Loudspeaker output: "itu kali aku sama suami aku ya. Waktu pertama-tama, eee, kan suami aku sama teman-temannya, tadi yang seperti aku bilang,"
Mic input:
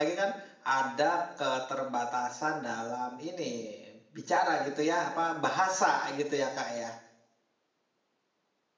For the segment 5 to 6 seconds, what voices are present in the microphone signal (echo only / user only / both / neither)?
user only